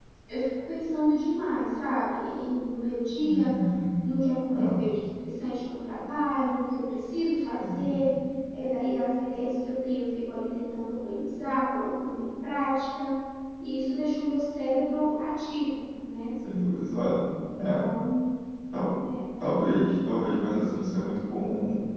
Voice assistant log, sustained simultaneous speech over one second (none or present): none